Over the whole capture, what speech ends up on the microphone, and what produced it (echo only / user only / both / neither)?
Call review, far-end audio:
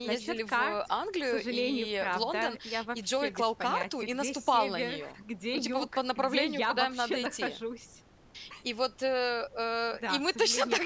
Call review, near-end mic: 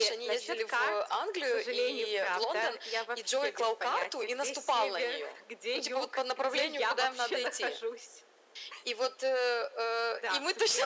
echo only